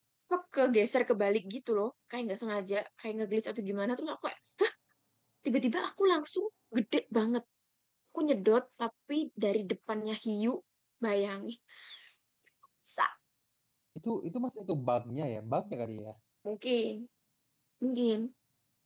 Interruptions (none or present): none